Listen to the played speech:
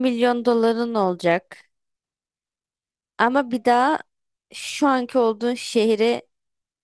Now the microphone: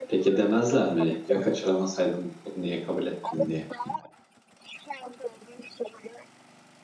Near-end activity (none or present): present